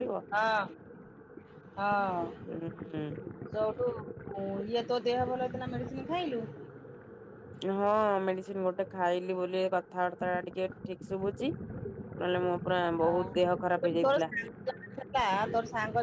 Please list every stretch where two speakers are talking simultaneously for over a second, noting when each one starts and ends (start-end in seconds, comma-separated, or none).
none